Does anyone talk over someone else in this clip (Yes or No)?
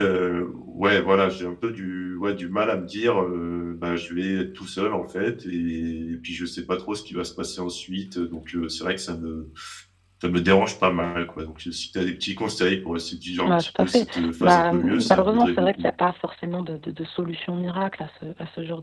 Yes